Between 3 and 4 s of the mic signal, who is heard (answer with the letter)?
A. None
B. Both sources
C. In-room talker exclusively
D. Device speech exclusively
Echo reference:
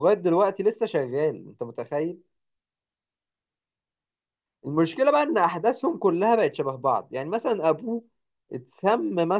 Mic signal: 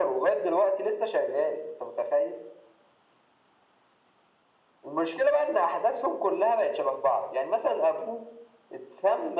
A